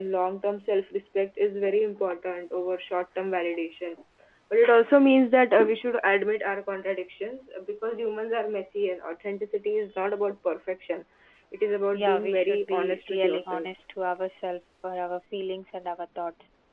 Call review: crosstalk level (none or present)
present